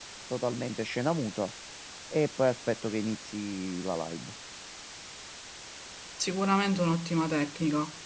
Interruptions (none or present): none